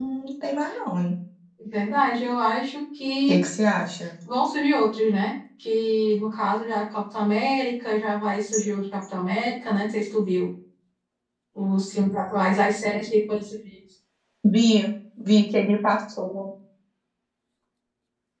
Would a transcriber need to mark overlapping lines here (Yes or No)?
No